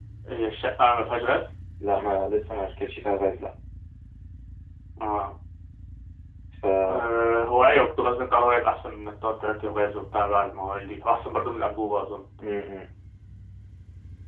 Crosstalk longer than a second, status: none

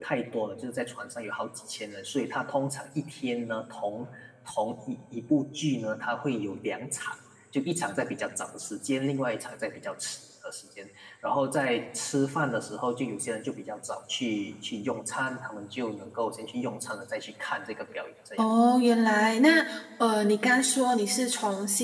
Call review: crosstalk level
none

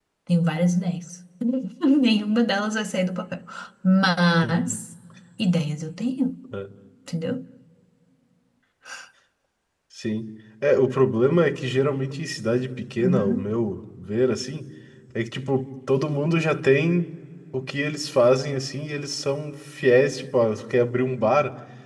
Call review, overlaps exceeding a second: none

